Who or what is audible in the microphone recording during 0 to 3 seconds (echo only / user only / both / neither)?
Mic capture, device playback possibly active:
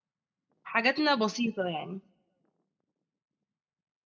user only